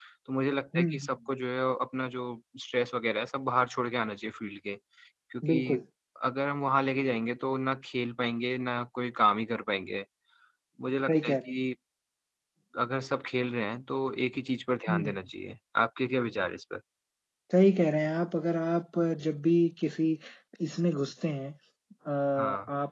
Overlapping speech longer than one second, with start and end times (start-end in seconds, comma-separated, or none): none